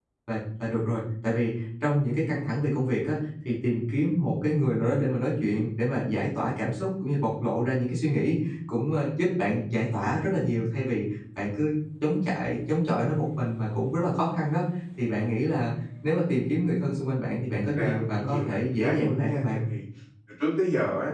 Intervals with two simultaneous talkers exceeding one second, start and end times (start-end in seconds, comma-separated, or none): 17.6-19.6